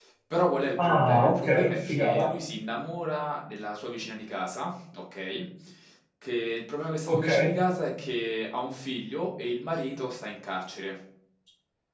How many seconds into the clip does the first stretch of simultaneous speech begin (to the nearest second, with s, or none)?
1 s